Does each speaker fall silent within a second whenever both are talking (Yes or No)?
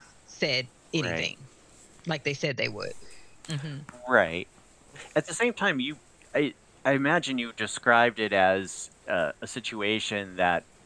Yes